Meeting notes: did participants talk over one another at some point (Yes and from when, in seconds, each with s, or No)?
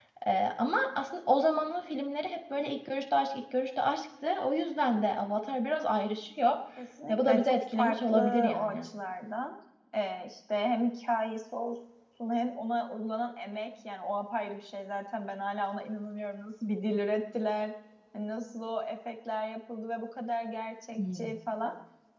Yes, from 7.1 s